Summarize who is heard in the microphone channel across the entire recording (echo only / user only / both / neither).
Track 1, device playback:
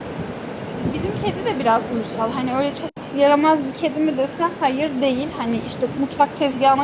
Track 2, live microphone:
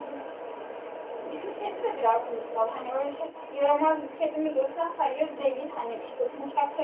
echo only